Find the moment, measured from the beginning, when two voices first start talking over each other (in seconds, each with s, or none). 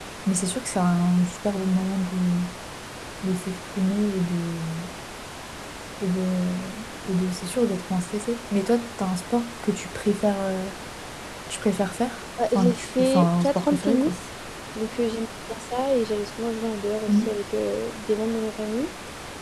12.6 s